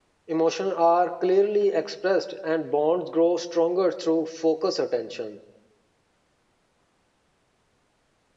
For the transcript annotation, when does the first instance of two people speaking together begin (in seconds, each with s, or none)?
none